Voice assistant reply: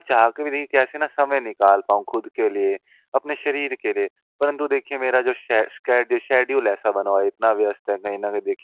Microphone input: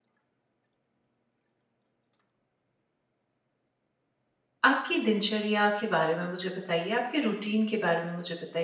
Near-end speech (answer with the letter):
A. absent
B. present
B